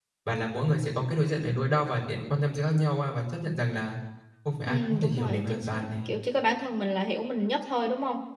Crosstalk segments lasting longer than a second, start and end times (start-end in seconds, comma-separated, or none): 4.7-6.1